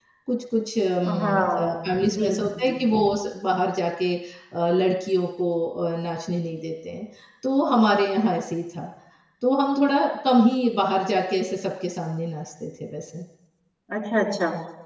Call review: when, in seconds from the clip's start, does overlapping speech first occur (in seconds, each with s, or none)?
1.1 s